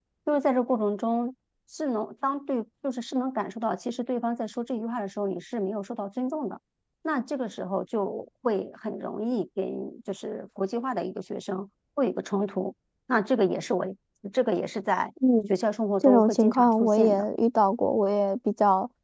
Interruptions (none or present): present